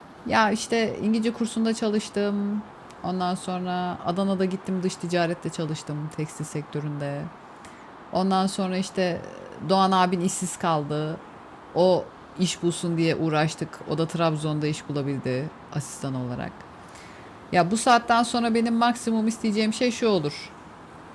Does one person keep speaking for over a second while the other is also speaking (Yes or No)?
No